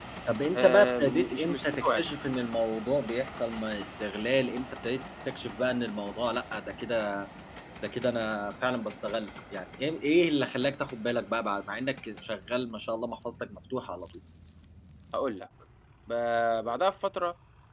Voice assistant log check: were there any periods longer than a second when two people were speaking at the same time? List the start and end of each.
0.6-2.0

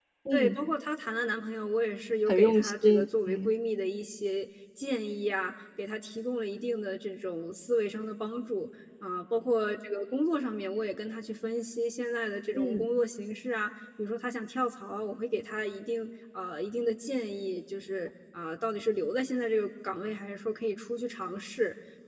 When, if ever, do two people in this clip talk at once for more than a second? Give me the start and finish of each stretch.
2.3-3.6

